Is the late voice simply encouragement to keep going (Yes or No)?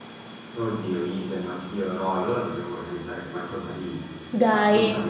No